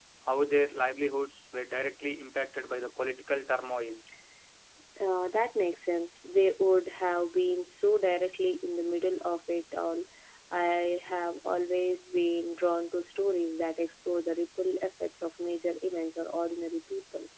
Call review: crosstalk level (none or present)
none